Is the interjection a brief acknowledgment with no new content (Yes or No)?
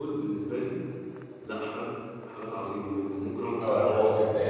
No